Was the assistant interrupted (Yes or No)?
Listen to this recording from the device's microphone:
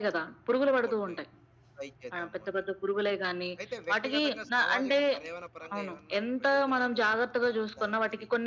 Yes